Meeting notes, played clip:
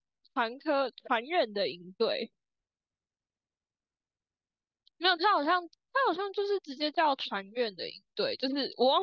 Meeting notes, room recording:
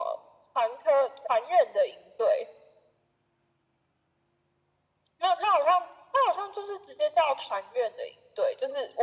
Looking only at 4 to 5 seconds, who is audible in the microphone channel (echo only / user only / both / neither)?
neither